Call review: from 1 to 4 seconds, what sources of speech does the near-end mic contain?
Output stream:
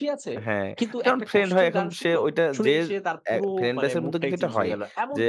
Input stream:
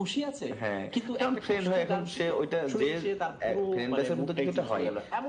echo only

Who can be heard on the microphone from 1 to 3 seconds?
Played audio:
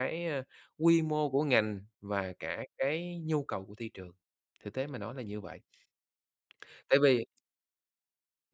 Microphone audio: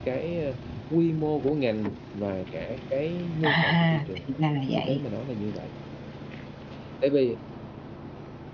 echo only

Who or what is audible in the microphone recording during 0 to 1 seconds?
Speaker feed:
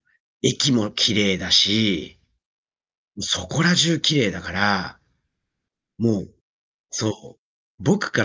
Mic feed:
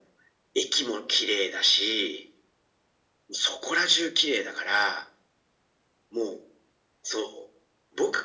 echo only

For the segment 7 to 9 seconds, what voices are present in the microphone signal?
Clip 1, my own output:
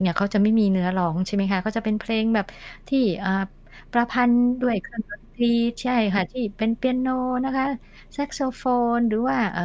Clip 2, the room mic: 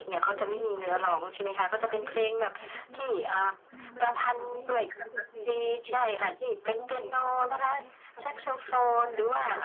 both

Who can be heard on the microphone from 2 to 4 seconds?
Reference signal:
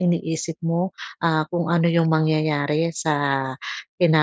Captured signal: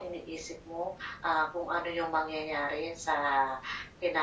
echo only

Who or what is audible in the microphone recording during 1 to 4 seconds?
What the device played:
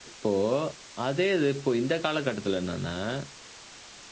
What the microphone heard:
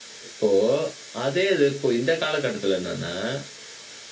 echo only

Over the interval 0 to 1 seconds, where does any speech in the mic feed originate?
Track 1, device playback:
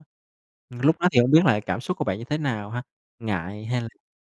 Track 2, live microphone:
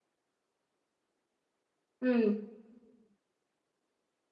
neither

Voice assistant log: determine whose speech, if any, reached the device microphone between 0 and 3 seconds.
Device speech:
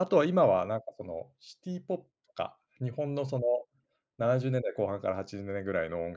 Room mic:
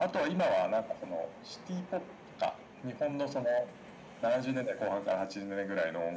echo only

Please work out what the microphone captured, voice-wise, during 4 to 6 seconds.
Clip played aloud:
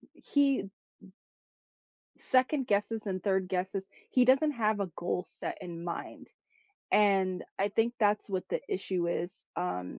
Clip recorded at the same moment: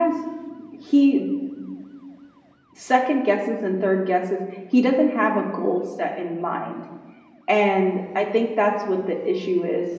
echo only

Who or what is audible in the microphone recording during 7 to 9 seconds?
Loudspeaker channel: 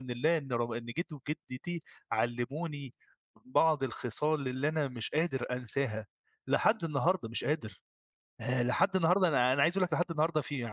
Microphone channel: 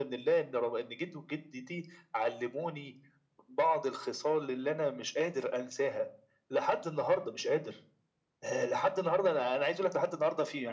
echo only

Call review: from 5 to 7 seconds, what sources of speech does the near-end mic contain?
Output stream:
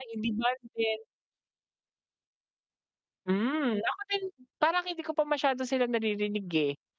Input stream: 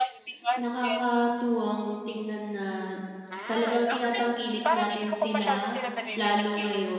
both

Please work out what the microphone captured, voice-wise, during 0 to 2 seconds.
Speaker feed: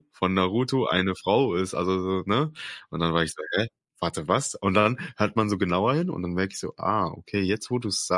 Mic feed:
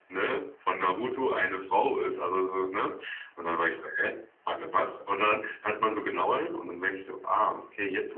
echo only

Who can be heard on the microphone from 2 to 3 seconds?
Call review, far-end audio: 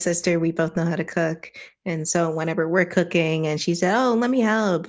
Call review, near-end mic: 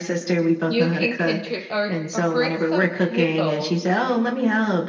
both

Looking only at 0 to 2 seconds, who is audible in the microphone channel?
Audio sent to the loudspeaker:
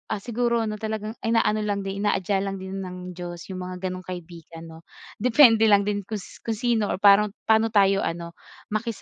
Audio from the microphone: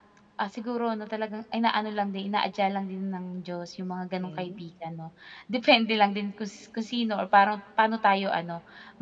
echo only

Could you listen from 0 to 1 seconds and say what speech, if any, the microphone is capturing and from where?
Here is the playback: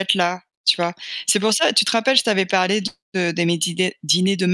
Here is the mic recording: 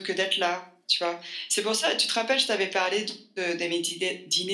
echo only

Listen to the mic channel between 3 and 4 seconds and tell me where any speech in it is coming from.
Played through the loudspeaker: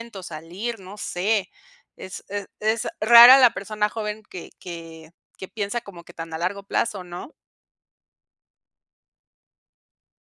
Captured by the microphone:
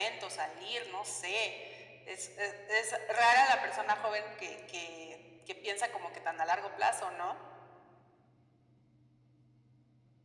echo only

